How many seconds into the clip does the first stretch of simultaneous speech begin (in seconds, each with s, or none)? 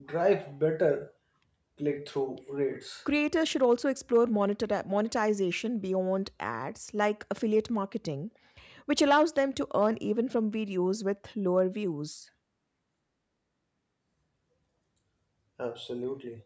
none